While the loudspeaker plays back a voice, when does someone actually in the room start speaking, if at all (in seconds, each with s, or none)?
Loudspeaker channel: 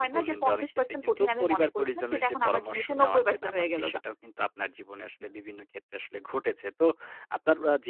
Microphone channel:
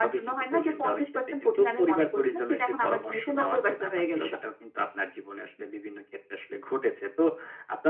none